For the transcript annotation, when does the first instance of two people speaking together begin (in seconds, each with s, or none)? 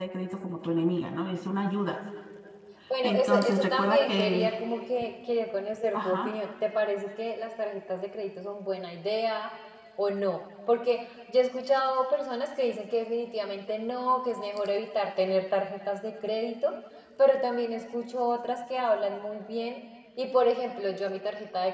3.0 s